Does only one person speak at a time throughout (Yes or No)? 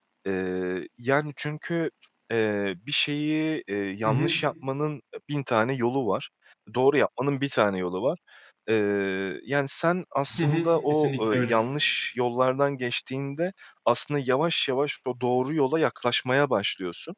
No